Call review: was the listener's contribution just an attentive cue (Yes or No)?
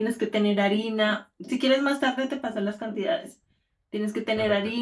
Yes